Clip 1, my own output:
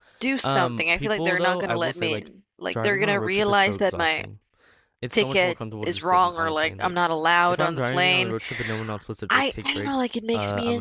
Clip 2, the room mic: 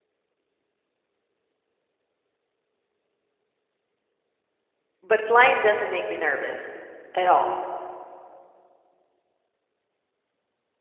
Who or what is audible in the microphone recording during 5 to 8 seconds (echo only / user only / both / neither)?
user only